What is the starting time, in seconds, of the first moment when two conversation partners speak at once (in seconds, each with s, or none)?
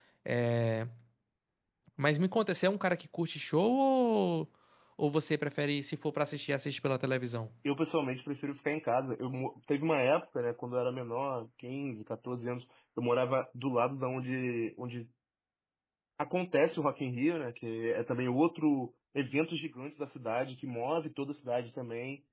none